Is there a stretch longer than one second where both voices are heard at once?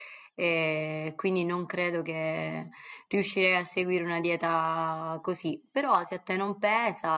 No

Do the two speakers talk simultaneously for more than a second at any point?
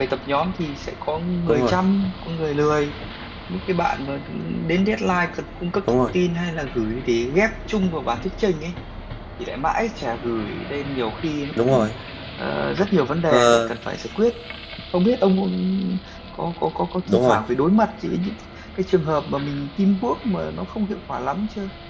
No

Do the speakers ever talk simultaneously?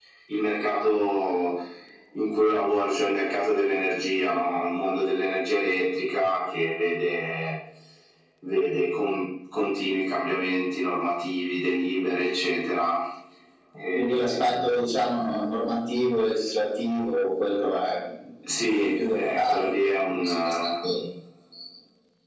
Yes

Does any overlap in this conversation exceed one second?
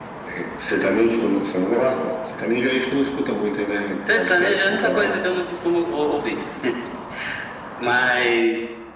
Yes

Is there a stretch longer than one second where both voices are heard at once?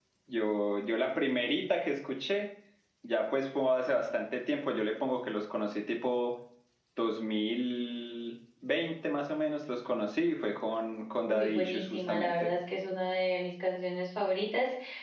Yes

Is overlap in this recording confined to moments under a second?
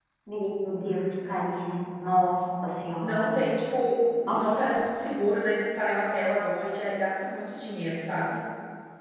Yes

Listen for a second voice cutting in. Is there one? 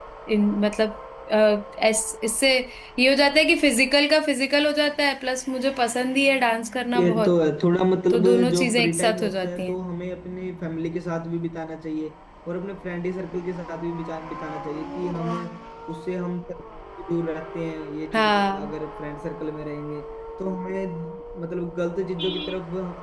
Yes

